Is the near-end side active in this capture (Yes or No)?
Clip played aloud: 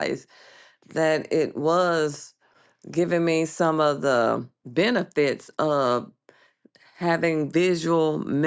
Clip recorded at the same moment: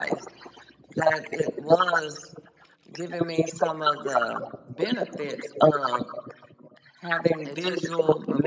Yes